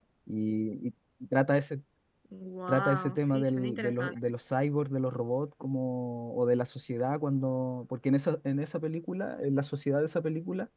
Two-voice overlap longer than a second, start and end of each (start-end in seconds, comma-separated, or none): 2.7-4.2